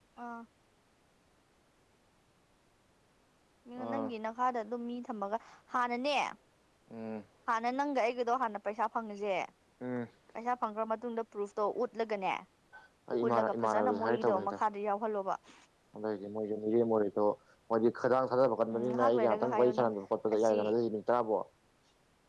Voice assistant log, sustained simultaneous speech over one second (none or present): present